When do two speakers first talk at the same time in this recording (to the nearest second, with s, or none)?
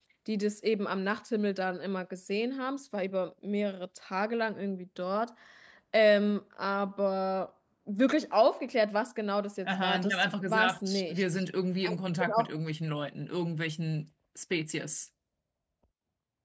10 s